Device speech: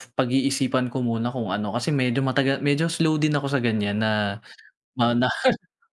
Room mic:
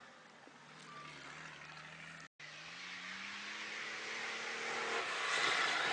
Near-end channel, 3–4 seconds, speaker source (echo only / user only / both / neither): neither